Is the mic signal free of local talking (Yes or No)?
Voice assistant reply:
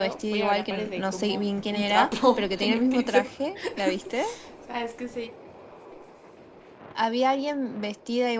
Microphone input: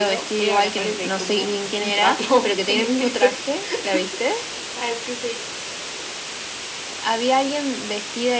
Yes